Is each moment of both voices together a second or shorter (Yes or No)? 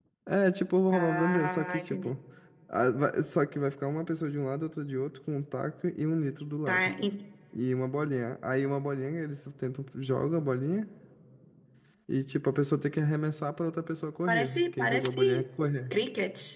No